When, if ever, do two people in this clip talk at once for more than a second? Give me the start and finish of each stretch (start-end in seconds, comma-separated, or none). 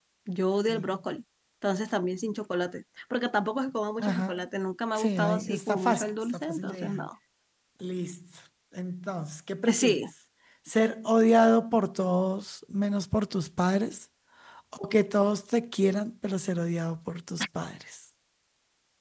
4.9-7.1